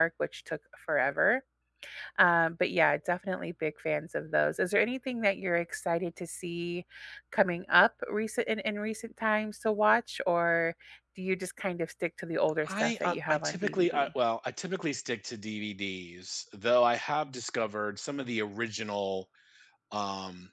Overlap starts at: 12.7 s

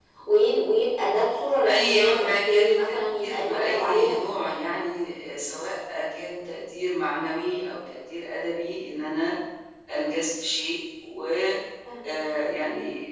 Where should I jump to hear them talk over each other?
1.6 s

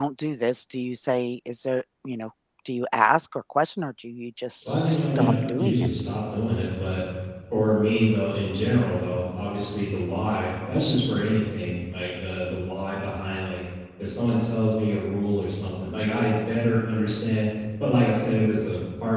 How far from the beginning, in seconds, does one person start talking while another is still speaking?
4.7 s

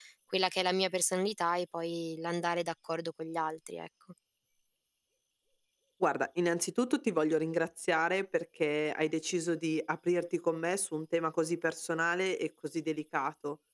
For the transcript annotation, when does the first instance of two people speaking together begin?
none

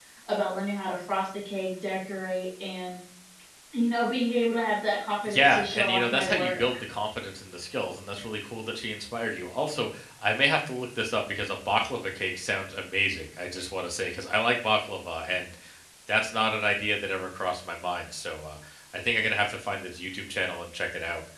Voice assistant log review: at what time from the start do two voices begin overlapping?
5.2 s

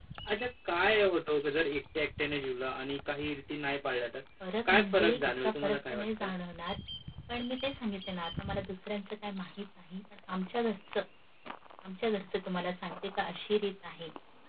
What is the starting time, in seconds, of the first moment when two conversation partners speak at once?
4.7 s

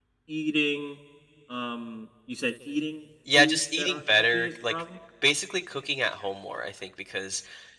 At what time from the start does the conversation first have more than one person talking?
3.3 s

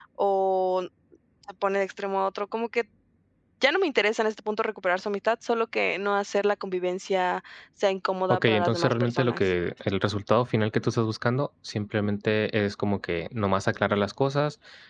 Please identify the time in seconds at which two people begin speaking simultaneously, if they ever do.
8.3 s

